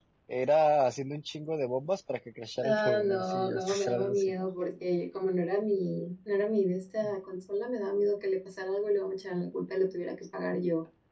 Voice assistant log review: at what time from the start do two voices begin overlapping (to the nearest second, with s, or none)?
3 s